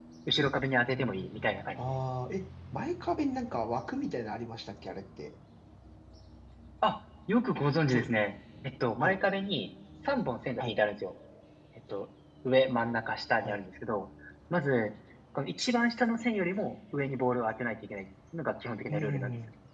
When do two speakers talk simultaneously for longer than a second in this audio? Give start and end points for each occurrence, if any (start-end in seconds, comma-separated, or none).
none